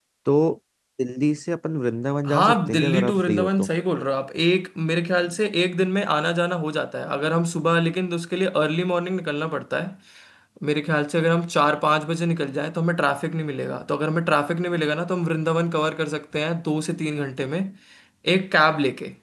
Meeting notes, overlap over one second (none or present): present